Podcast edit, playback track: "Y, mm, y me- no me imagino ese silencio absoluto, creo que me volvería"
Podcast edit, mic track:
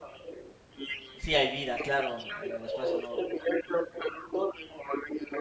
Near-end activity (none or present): present